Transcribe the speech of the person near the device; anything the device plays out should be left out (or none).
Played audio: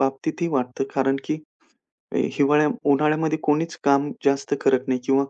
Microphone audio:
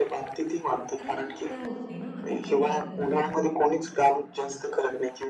कारण शक्य होत नाही ना इतक्या गरमीमध्ये.